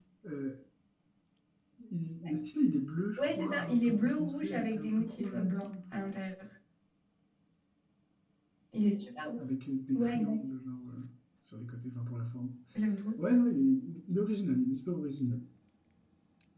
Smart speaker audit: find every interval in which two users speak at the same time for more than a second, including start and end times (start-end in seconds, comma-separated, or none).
3.2-5.7